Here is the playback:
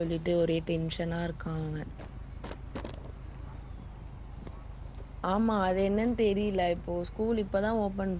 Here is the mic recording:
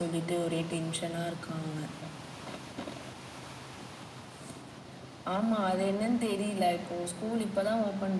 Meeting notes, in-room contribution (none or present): none